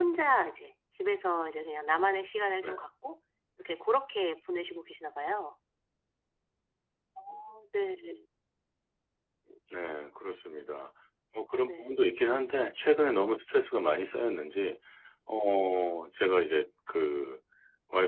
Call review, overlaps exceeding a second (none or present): none